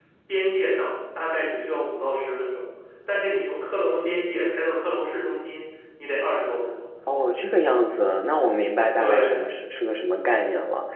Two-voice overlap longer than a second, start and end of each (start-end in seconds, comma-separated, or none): none